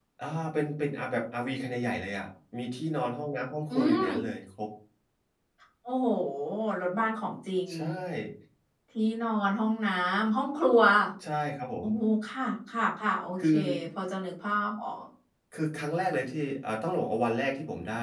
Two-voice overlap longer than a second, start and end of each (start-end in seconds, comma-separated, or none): none